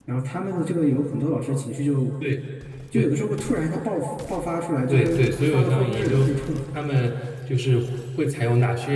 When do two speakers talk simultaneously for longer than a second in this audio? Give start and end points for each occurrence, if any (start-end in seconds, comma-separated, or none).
4.9-6.3